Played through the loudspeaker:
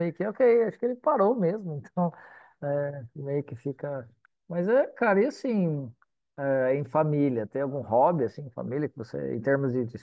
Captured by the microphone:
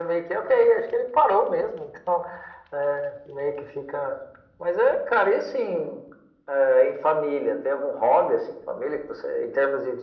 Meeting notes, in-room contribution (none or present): none